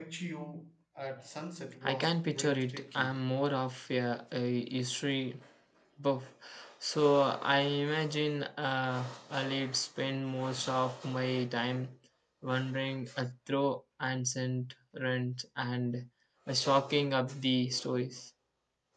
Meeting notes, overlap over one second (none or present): present